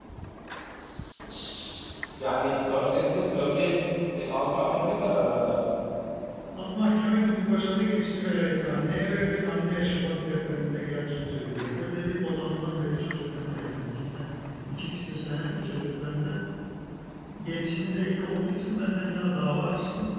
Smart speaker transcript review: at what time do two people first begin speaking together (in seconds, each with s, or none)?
none